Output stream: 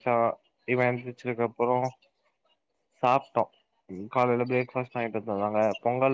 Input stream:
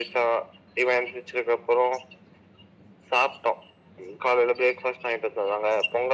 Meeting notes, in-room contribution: none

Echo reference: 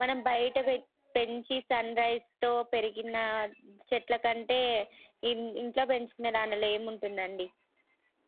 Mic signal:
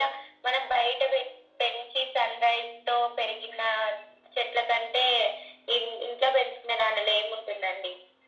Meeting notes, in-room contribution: none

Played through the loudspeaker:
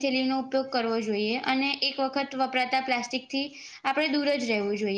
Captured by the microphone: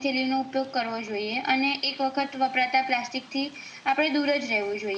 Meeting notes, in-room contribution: none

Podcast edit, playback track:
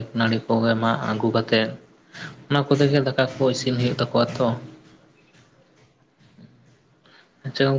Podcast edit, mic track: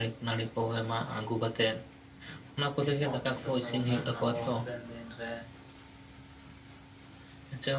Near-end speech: present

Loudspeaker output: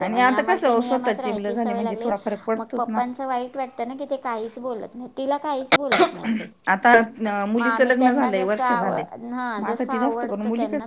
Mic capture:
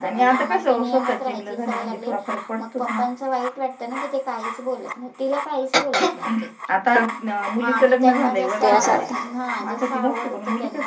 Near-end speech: present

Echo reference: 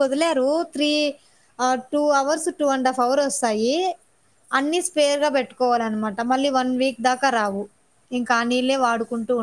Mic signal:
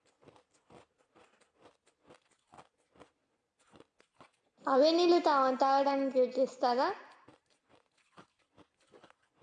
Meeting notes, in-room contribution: present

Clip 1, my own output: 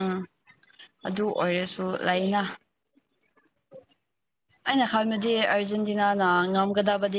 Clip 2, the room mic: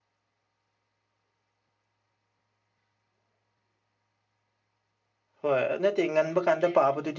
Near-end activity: present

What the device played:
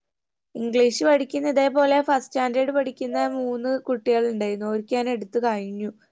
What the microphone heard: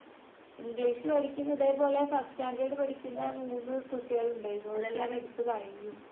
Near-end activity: present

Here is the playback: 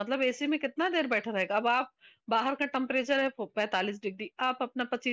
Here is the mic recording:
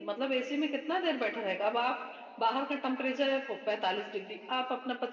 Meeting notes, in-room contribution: none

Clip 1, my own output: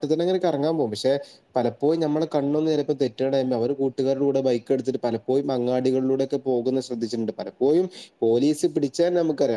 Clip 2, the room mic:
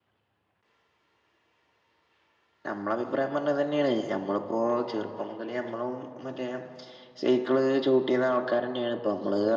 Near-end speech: present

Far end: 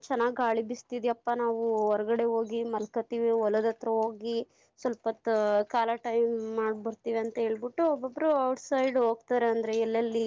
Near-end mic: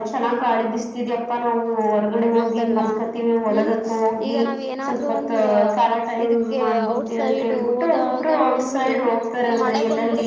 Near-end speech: present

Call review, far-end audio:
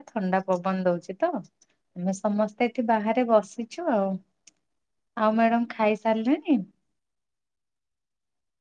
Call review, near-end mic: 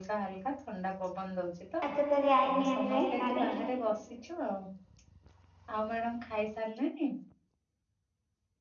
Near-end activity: present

